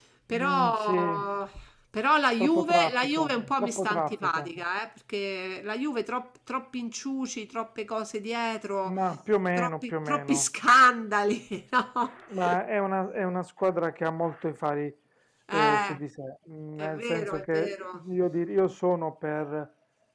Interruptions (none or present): present